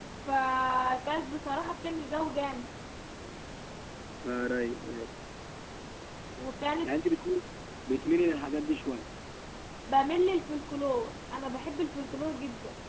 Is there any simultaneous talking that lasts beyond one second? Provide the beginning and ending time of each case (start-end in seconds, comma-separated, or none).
none